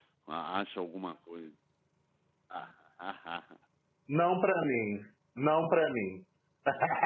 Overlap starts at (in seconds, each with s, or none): none